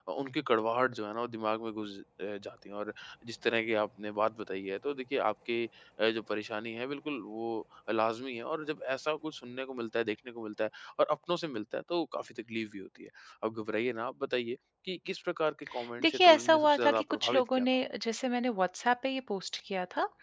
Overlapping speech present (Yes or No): Yes